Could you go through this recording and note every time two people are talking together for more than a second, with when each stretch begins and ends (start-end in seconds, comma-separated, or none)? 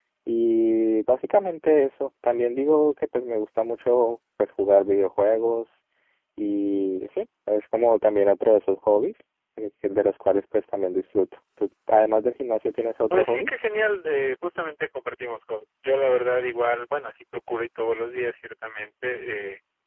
none